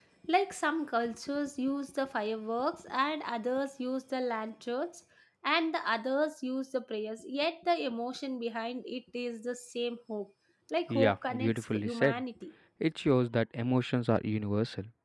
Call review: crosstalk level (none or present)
present